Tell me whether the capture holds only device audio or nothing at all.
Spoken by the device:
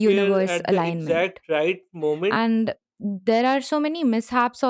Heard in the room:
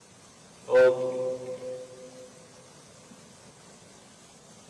No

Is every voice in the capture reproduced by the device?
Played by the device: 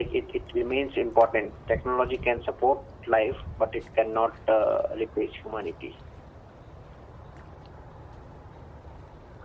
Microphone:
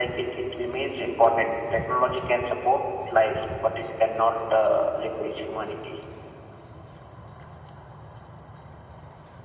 Yes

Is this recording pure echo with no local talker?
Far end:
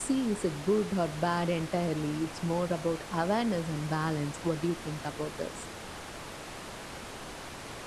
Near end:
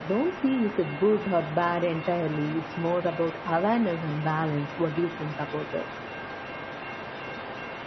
Yes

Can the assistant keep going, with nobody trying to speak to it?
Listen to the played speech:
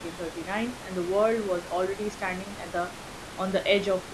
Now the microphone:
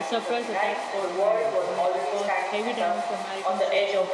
No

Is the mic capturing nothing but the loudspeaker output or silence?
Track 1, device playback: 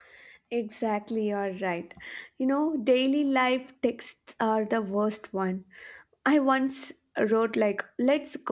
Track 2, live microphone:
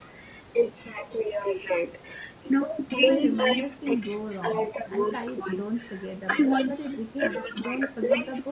No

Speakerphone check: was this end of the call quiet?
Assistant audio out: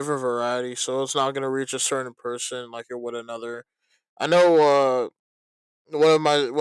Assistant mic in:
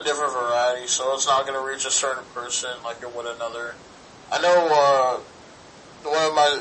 Yes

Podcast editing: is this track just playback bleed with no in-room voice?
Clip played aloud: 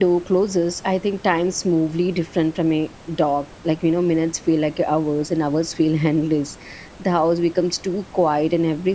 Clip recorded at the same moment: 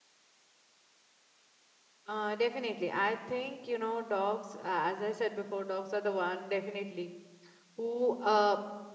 No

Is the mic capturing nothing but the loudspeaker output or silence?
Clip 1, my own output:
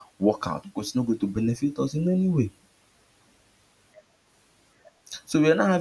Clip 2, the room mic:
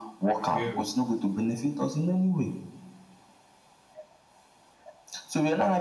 No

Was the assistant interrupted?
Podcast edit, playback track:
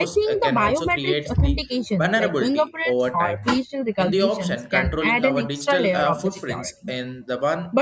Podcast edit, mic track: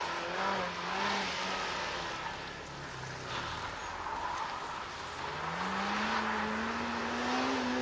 No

